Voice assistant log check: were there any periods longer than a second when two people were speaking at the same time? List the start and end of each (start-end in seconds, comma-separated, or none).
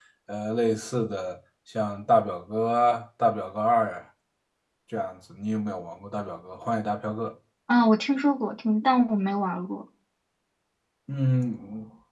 none